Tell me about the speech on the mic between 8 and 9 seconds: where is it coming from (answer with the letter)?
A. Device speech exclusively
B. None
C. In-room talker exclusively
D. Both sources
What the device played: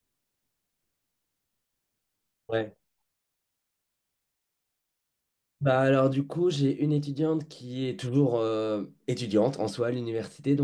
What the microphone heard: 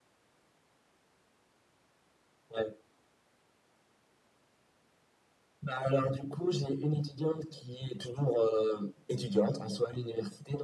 A